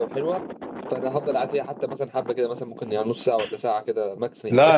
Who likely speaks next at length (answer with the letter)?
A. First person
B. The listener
B